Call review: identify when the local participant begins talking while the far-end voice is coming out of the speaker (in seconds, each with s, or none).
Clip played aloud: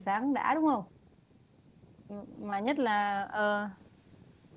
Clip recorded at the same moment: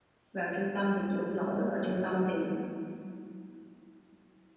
0.3 s